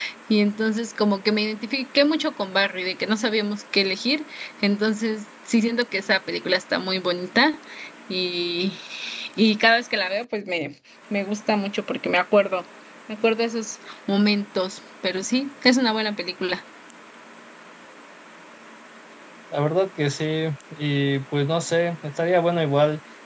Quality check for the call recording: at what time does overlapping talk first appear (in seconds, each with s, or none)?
none